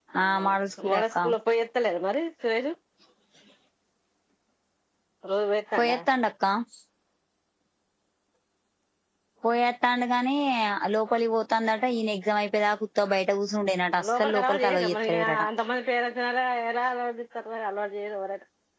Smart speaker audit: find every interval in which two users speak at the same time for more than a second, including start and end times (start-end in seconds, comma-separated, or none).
14.1-15.4